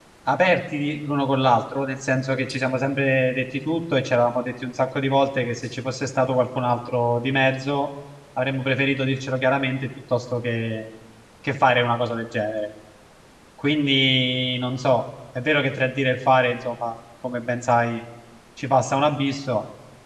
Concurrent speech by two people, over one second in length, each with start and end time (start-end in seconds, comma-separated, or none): none